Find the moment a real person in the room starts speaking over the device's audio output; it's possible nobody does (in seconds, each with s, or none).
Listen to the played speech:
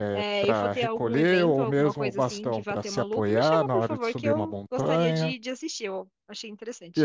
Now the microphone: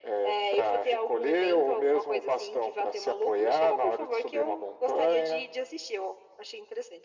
none